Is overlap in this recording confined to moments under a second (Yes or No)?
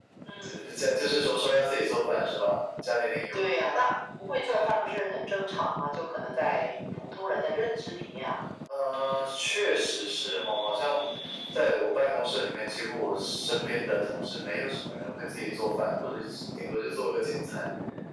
Yes